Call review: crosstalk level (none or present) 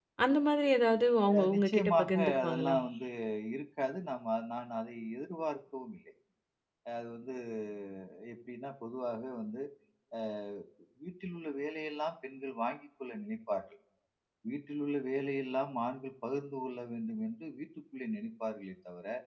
present